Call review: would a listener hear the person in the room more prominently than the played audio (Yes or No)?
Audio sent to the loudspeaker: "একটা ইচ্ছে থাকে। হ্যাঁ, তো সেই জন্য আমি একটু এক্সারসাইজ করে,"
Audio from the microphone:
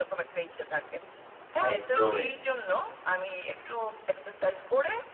Yes